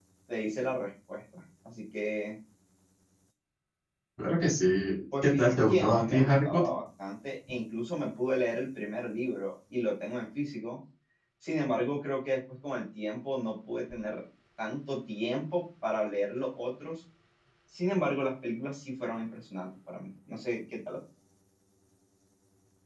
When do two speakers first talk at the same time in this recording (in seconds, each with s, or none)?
5.1 s